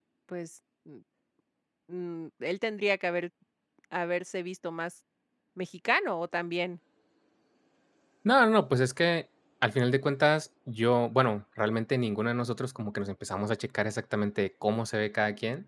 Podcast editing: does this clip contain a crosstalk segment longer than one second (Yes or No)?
No